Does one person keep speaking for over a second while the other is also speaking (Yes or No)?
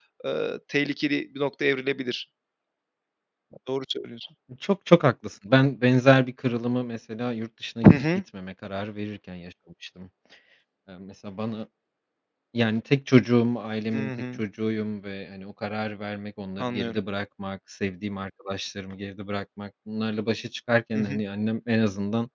No